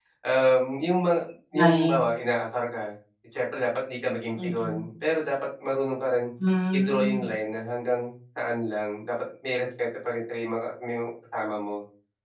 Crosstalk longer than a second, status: none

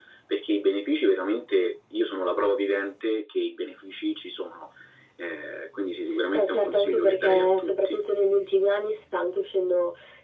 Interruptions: present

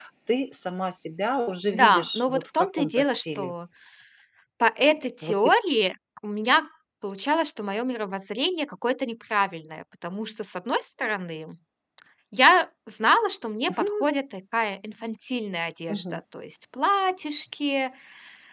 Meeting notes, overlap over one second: present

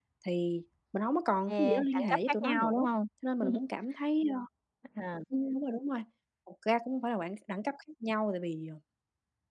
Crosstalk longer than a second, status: present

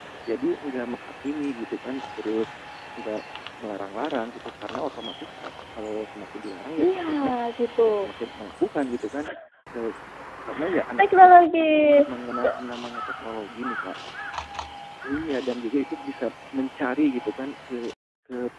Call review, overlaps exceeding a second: present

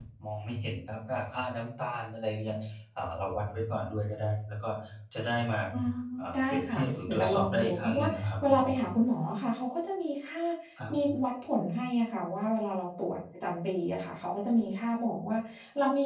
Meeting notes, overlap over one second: present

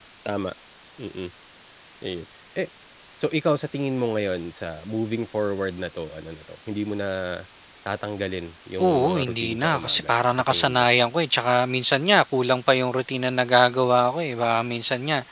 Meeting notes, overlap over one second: present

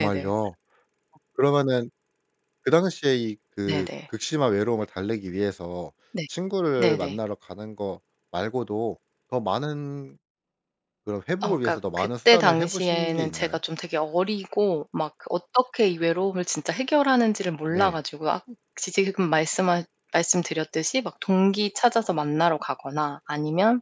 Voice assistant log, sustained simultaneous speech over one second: present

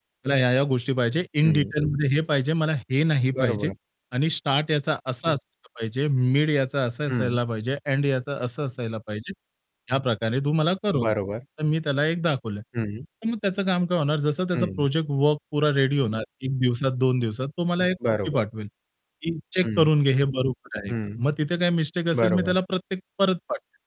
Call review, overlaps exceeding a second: none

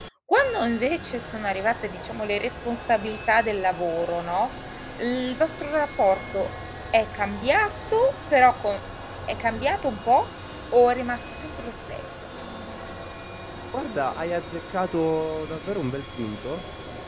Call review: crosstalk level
none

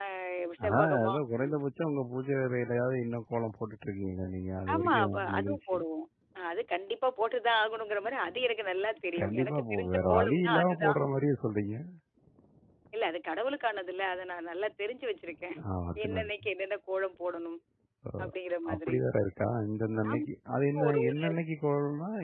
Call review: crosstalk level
present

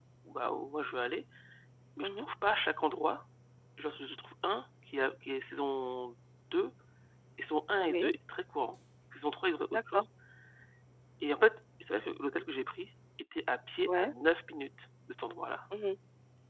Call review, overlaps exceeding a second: none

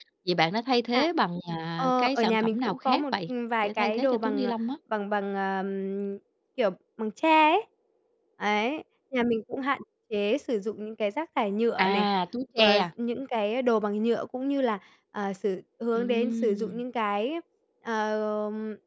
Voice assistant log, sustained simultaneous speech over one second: present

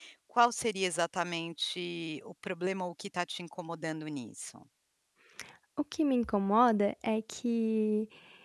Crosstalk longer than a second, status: none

